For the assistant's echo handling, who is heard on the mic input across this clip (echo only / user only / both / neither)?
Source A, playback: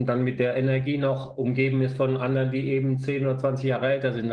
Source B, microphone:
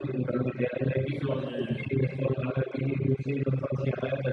both